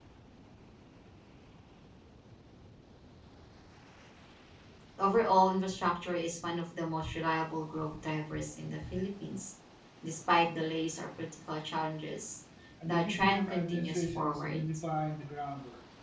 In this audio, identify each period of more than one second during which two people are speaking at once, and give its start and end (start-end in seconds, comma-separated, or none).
12.8-14.6